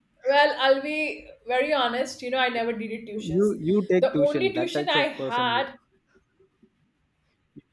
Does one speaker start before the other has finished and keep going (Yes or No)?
Yes